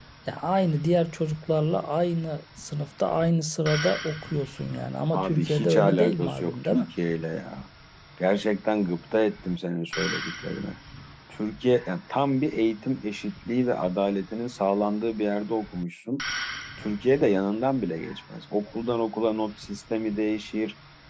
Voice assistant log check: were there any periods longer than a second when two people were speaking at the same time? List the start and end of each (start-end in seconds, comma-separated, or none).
5.1-6.8